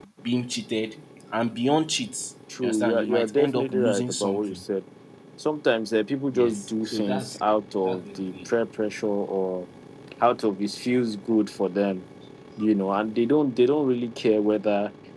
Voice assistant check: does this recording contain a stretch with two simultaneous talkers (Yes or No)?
Yes